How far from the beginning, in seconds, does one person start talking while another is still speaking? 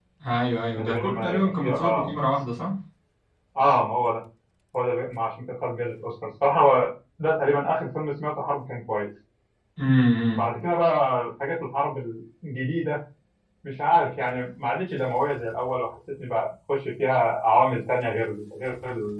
1 s

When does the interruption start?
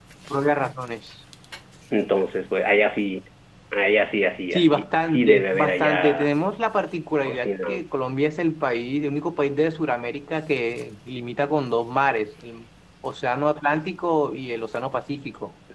5 s

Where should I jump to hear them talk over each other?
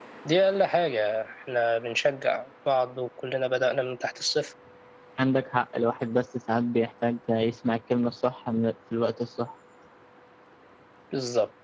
none

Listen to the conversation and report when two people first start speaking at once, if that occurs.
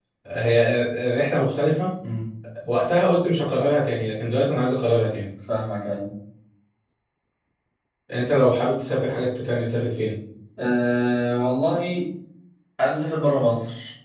none

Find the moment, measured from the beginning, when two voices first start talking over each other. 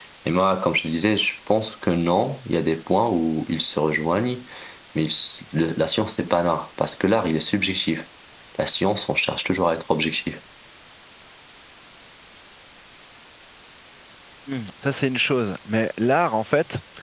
none

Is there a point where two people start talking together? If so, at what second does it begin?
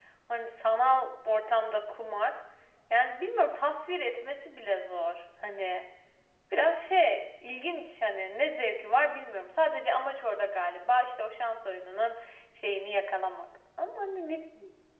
none

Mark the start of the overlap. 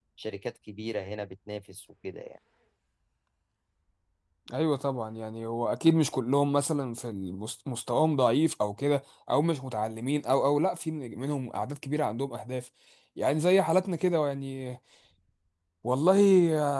none

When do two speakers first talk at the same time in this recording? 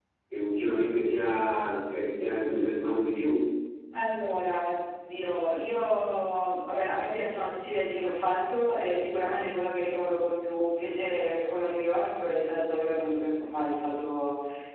none

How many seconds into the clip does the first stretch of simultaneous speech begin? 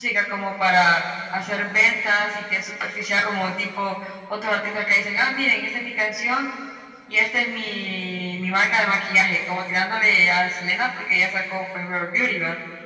none

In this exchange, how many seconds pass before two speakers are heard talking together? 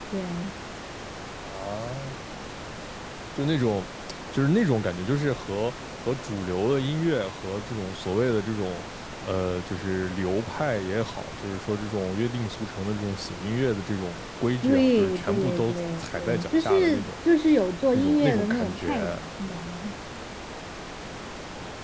15 s

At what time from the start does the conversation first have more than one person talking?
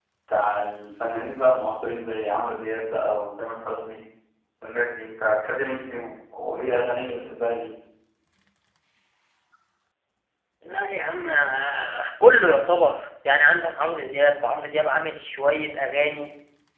none

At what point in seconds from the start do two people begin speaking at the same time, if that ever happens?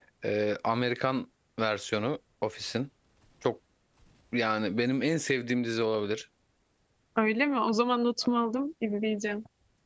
none

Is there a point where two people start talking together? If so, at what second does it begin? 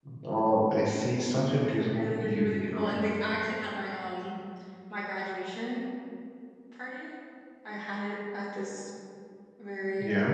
1 s

